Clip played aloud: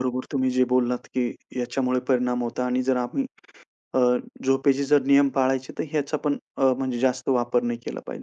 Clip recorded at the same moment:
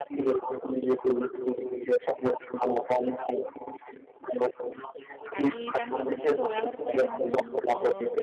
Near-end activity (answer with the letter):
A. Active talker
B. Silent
A